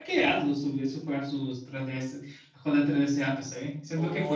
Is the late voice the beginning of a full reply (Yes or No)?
Yes